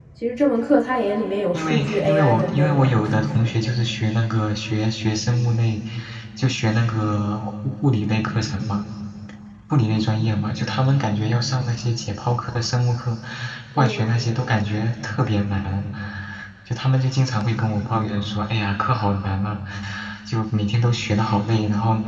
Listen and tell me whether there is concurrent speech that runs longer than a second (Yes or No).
Yes